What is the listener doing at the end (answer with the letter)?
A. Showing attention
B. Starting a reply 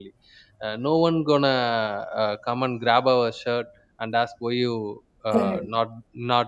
A